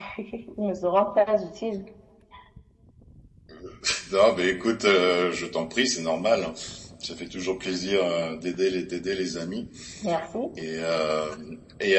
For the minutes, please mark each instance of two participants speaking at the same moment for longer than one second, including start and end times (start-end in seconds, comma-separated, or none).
none